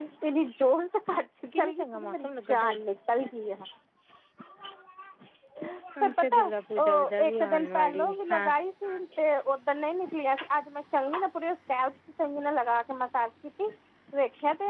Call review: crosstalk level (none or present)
present